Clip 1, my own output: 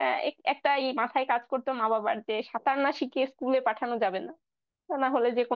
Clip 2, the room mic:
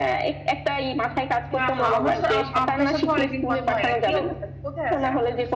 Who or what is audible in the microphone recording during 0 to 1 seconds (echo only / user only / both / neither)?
echo only